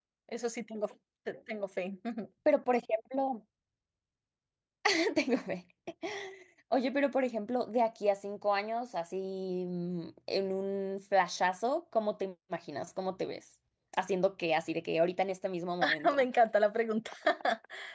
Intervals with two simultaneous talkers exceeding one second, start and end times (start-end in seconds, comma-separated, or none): none